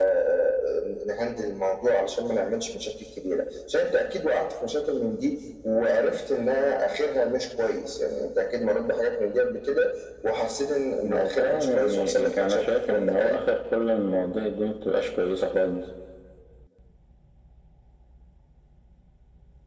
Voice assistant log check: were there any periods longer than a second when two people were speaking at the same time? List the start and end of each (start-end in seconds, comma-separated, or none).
11.1-13.4